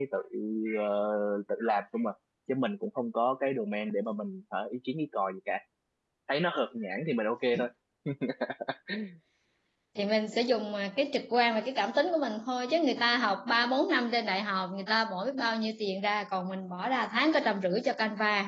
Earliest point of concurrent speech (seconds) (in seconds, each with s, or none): none